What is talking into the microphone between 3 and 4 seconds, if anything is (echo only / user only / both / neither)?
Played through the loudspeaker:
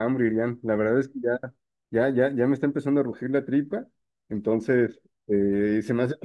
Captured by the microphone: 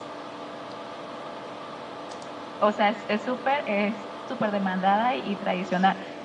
user only